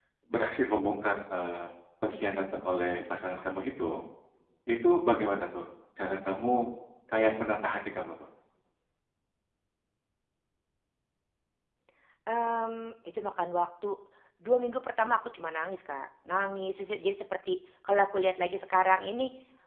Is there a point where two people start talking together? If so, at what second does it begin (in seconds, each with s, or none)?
none